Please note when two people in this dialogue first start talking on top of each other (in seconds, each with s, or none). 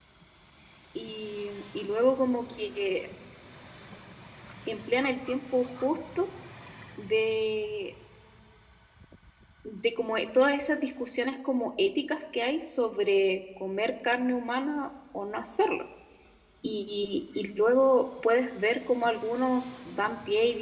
none